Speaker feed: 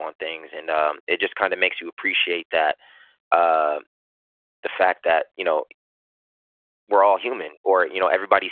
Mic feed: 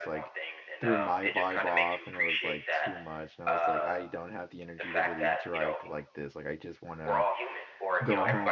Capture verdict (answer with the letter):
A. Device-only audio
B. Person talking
B